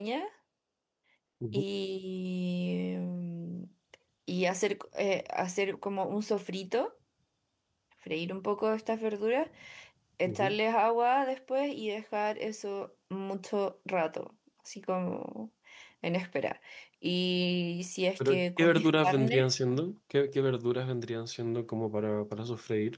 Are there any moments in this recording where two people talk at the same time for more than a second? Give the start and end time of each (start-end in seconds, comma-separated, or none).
18.2-19.5